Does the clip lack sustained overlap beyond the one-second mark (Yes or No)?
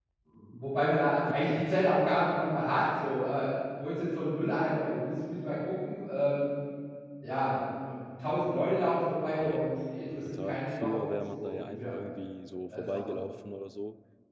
No